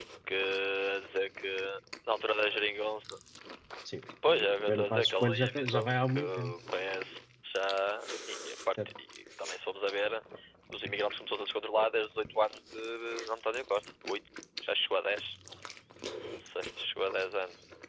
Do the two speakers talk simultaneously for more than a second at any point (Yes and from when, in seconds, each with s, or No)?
Yes, from 4.3 s